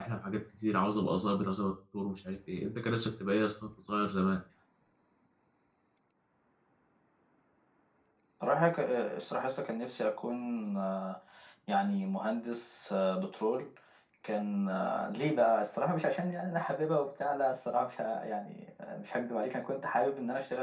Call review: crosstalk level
none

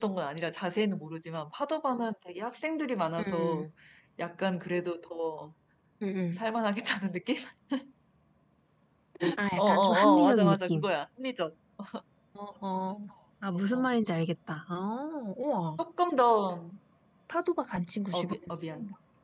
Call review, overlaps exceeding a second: present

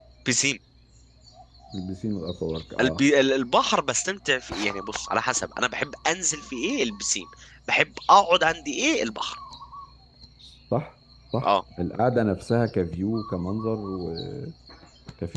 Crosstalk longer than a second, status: none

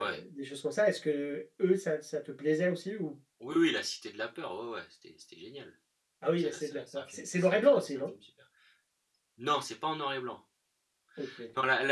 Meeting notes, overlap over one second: present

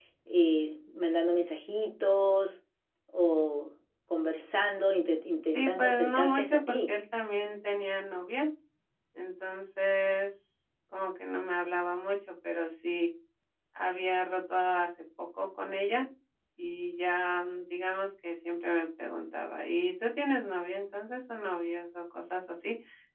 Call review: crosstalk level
present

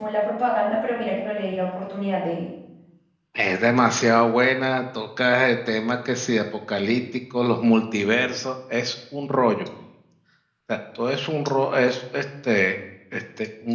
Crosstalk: none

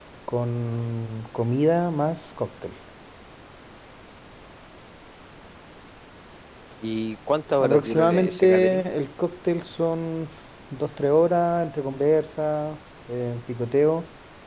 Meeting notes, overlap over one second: present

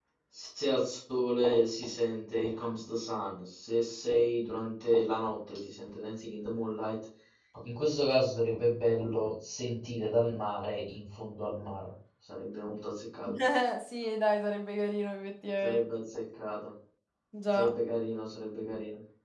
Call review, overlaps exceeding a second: none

